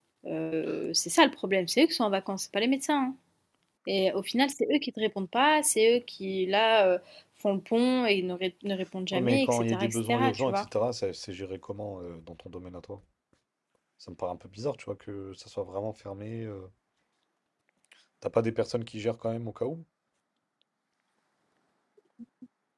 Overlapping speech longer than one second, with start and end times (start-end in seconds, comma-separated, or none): 9.1-10.7